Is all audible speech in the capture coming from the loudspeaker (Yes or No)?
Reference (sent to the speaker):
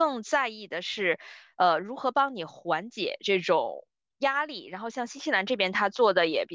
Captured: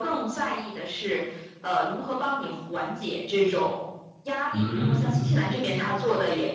No